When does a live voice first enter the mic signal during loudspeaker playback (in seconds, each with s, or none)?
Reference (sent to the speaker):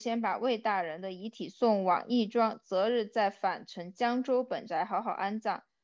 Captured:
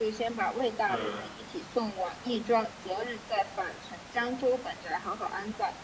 0.8 s